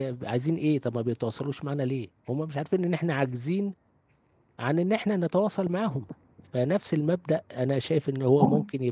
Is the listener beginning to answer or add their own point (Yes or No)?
No